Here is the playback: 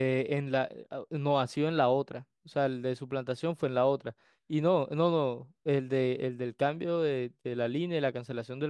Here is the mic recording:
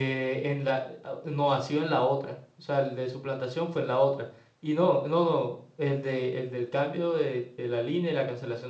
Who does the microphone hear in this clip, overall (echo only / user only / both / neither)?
echo only